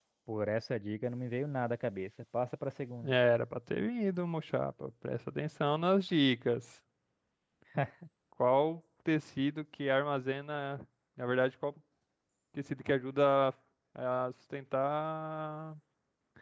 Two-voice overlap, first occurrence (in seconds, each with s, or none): none